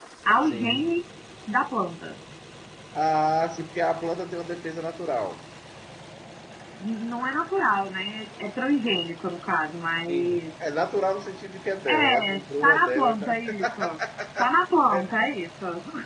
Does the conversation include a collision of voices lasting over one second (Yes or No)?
Yes